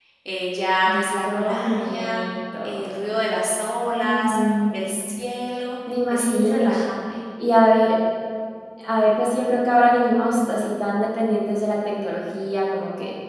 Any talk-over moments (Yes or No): Yes